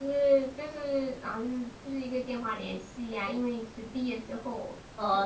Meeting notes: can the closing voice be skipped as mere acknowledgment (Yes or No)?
No